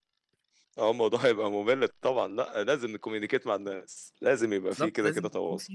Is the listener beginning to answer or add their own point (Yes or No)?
Yes